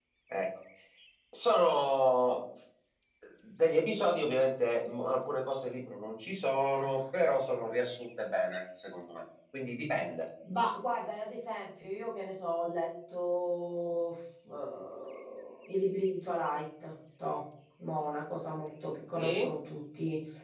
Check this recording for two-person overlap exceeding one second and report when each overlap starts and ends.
none

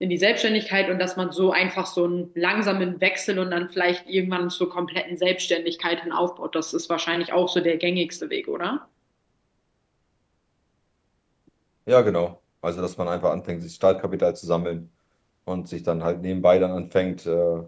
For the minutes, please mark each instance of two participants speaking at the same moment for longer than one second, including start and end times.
none

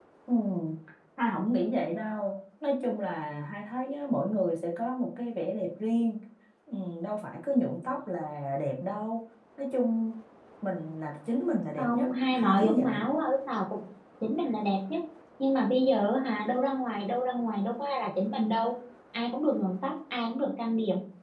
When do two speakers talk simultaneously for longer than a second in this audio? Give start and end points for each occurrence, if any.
11.8-13.0

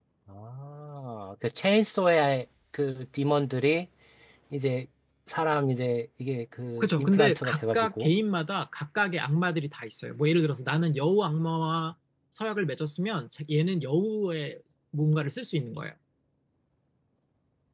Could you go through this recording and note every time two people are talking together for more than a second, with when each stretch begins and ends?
6.8-8.1

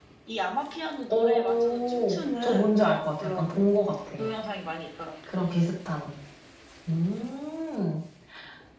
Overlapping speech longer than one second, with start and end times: 1.1-2.7

